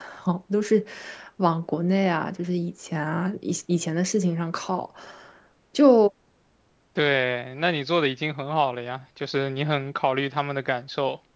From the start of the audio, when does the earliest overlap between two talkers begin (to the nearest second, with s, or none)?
none